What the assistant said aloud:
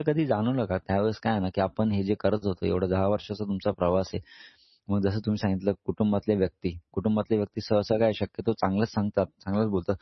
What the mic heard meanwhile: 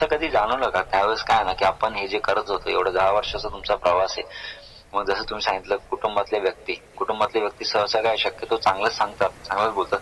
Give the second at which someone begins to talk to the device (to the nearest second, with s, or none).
none